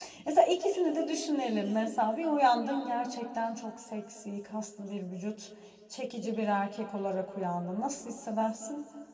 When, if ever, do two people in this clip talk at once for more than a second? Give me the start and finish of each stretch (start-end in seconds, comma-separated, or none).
none